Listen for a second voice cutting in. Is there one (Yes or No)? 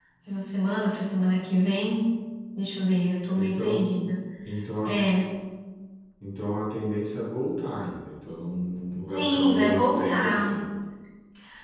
Yes